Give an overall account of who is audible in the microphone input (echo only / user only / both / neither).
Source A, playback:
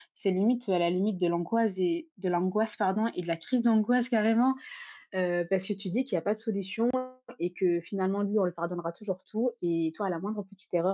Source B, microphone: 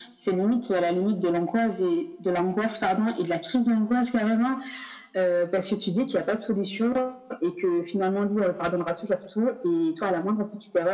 echo only